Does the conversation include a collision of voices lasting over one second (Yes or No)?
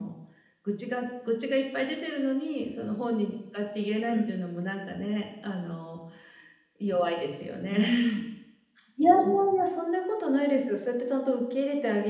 No